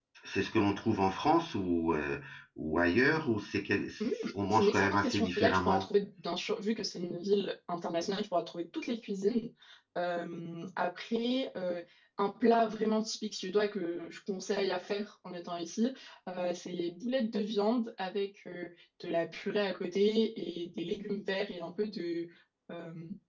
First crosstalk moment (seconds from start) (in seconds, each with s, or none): 4.5 s